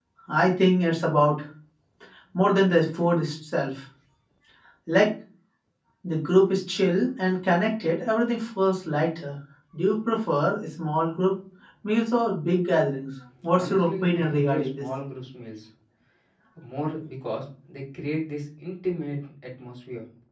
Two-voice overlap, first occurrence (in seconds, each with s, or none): 13.5 s